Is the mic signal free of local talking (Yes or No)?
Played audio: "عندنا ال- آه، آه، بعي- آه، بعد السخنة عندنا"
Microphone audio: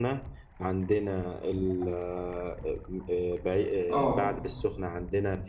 No